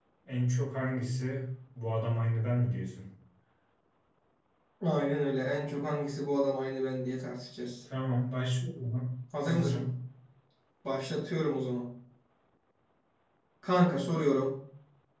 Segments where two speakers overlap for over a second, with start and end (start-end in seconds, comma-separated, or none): none